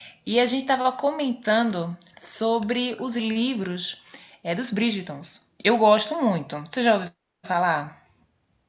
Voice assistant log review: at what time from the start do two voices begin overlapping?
none

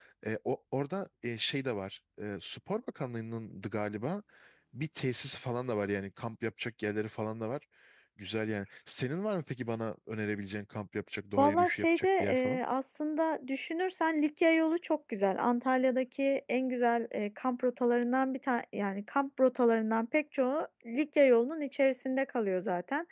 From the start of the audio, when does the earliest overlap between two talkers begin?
11.4 s

